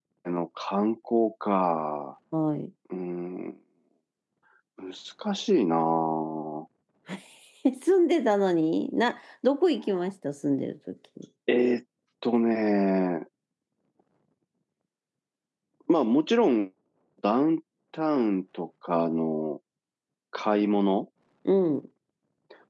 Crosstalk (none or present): none